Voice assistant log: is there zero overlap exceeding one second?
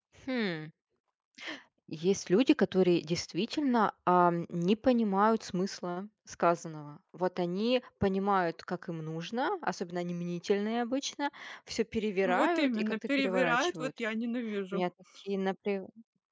No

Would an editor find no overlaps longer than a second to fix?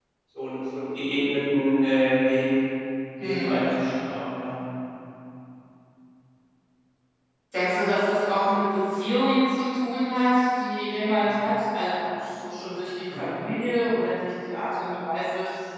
Yes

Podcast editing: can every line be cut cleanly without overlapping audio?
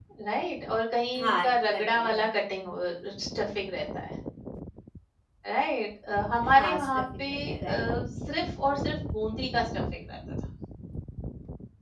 No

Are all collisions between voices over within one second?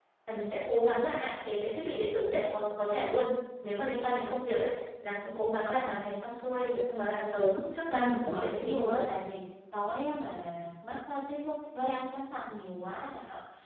No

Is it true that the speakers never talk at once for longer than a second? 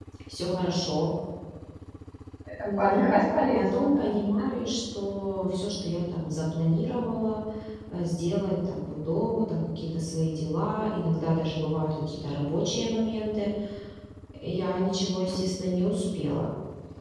No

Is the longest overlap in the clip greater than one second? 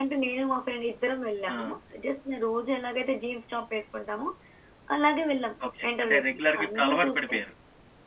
Yes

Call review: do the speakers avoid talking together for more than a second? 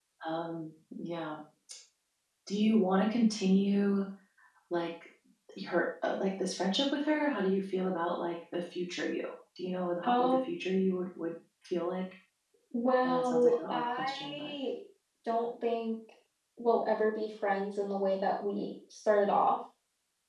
No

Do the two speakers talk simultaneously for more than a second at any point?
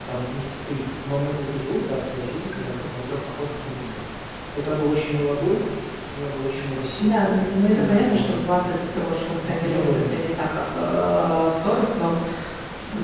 Yes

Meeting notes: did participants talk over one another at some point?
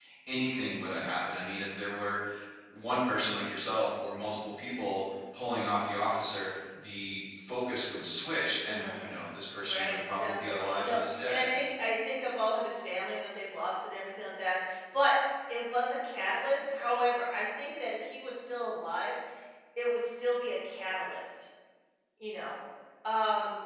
Yes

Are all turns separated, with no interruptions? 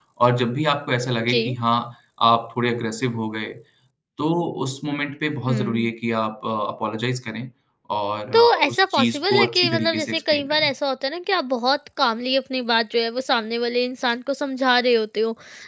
No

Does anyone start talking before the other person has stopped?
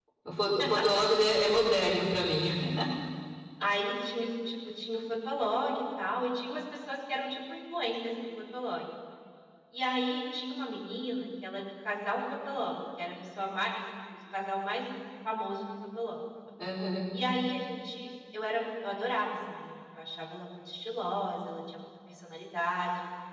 No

